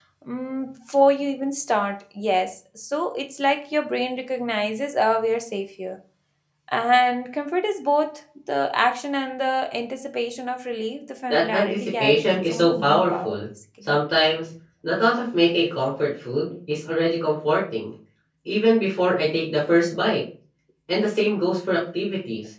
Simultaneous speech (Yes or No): Yes